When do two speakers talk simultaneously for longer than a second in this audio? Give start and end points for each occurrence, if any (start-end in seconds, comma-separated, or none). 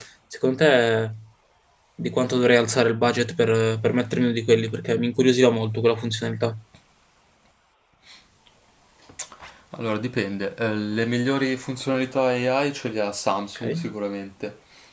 none